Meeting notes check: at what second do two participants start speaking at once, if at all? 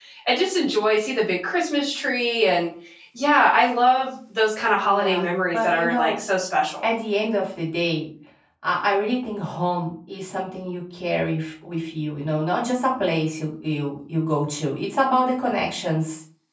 5 s

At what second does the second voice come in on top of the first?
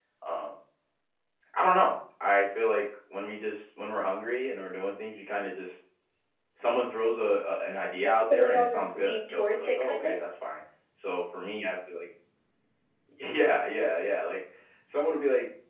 8 s

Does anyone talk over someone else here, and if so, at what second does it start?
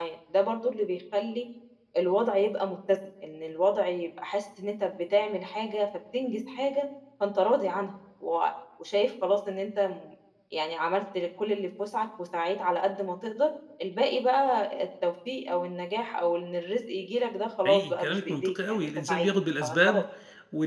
18 s

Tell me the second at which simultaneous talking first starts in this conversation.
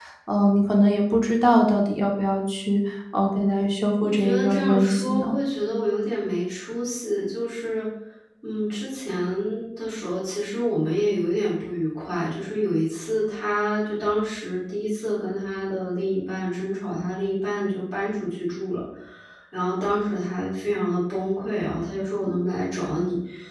4 s

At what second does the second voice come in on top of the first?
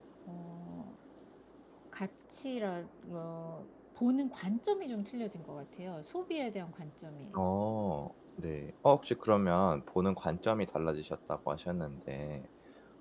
none

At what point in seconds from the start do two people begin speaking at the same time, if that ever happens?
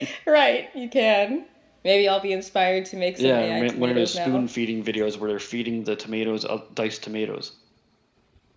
3 s

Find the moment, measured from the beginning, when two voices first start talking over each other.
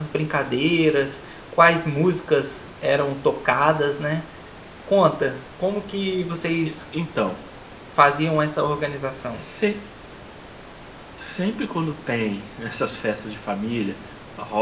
none

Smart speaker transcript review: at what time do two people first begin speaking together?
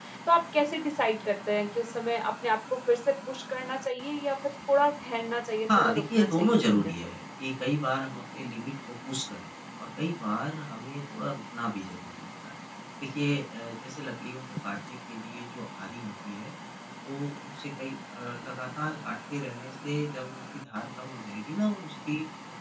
6 s

